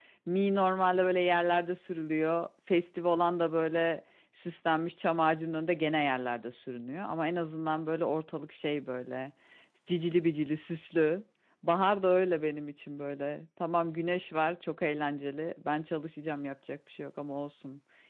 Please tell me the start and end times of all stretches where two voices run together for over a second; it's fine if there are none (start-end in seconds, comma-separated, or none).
none